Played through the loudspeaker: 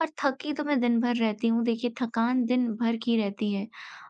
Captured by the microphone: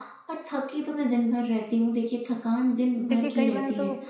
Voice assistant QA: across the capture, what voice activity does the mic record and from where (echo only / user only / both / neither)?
both